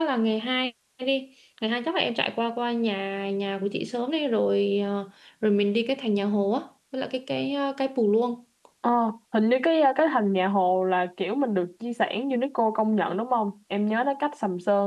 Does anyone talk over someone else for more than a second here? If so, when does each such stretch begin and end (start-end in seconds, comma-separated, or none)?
none